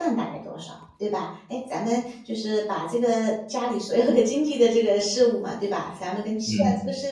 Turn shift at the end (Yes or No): No